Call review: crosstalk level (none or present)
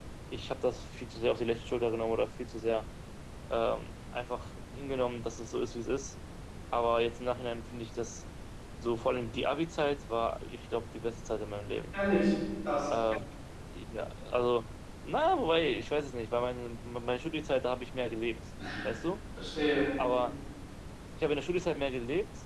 none